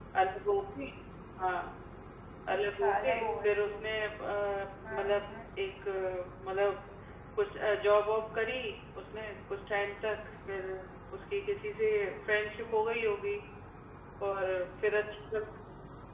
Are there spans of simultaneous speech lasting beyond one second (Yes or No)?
Yes